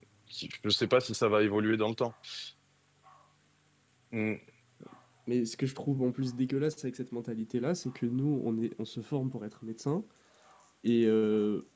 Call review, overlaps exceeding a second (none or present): none